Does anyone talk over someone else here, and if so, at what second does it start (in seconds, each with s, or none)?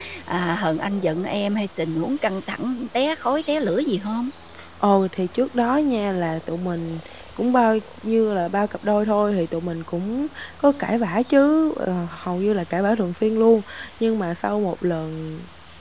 none